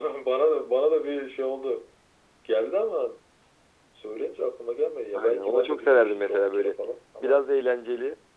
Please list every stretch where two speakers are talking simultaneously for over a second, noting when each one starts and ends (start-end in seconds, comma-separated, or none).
5.1-6.8